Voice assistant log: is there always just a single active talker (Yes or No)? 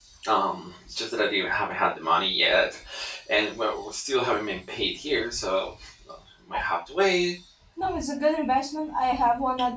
Yes